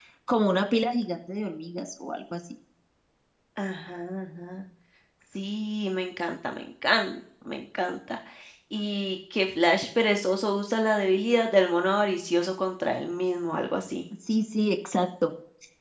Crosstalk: none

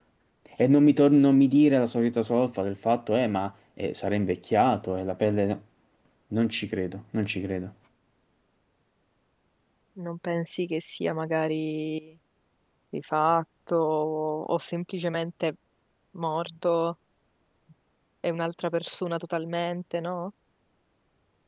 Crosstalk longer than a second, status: none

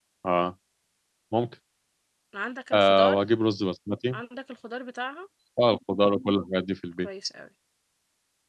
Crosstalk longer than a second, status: none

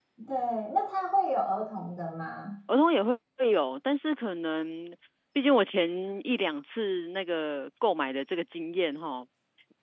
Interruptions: none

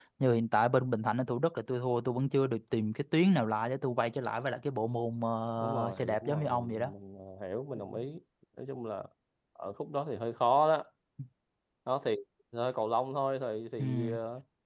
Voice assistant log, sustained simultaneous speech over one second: present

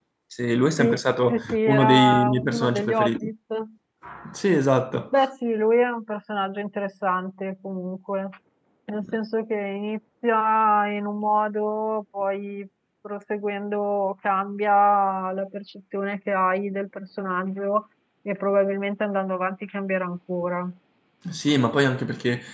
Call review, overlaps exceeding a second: present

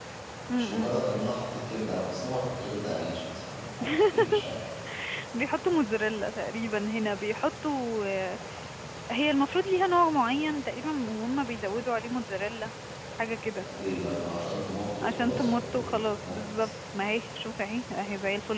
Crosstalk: present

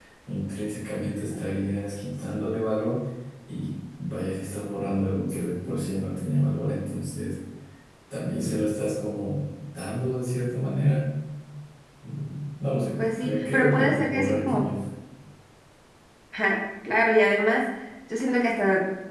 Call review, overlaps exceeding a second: present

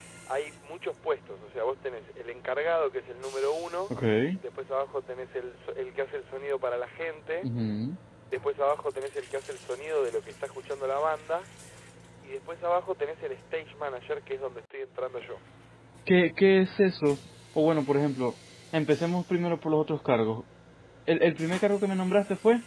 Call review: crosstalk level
none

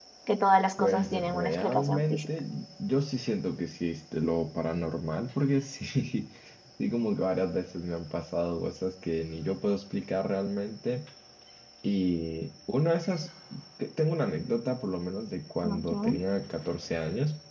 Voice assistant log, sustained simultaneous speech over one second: present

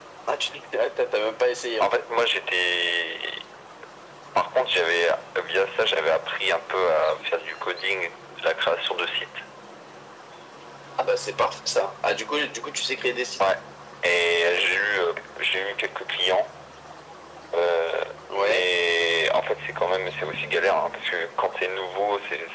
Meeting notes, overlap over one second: none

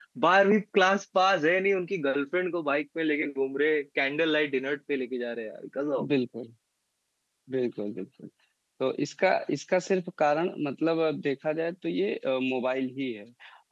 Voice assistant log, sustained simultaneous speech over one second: none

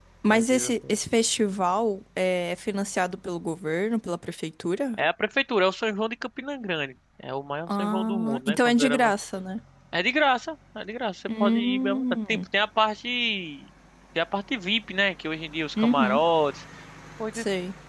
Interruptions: present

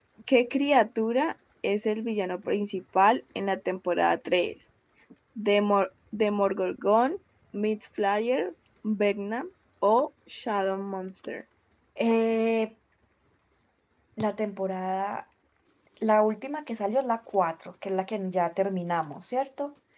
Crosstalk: none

